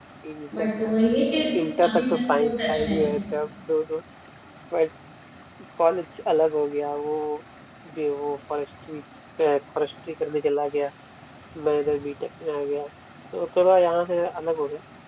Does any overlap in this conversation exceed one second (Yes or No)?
Yes